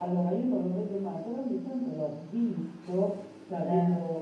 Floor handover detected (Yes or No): No